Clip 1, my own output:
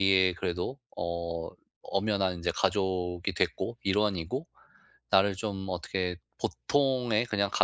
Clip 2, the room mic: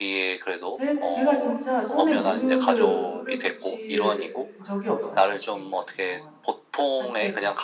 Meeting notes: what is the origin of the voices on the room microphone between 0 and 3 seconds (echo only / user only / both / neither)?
both